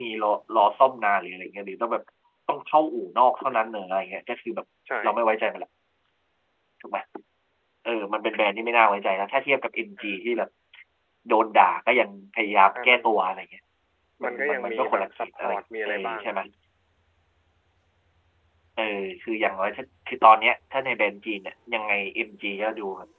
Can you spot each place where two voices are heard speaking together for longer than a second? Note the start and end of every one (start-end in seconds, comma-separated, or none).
14.2-16.4